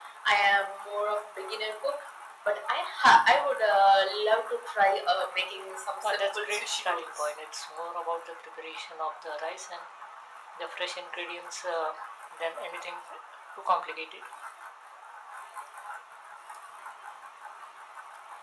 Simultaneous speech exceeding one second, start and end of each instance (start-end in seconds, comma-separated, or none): 6.0-7.3